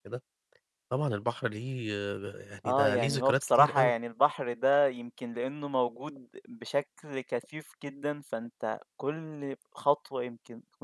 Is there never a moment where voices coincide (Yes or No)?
No